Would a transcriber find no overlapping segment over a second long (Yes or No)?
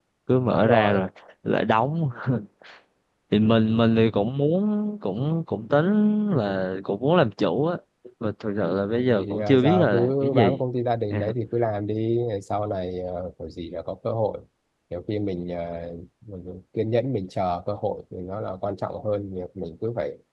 No